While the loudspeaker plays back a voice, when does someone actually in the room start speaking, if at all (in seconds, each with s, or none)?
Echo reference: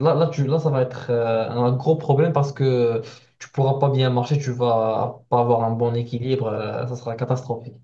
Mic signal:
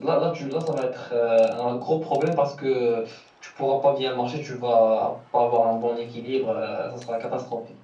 none